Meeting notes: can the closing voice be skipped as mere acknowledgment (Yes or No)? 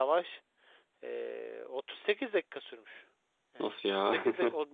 Yes